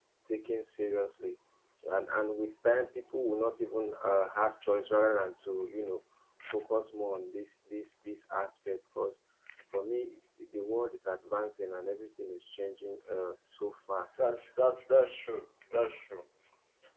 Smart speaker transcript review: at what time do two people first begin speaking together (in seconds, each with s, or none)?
none